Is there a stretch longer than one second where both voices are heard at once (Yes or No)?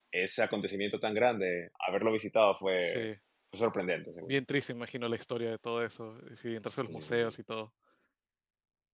No